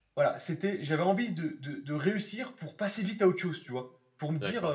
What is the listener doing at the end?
listening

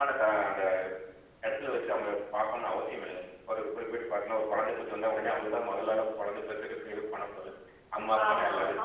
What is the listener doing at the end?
taking over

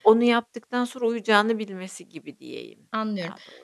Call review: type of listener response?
taking over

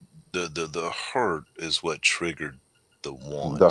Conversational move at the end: taking over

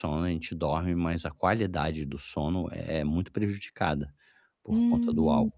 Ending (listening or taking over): taking over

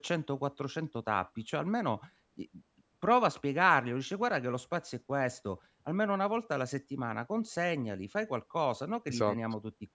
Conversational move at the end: listening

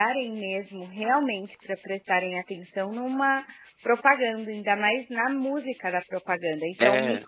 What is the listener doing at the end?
listening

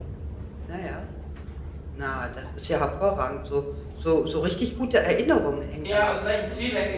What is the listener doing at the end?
taking over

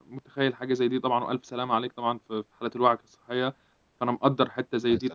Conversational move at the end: listening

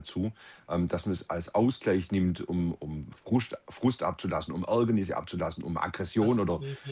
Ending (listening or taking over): listening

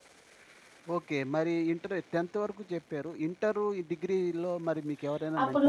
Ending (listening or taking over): taking over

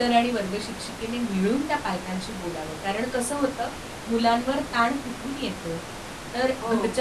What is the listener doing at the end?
listening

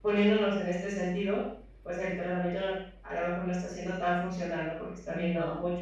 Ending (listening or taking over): listening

